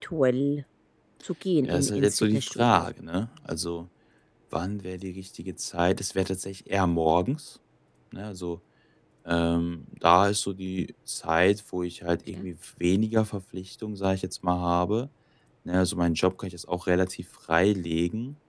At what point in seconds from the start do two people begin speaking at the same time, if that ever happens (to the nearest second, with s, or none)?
2 s